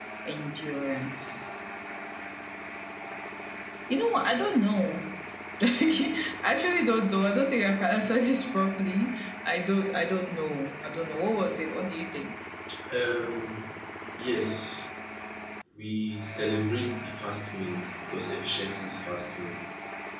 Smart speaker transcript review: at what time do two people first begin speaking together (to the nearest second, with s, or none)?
none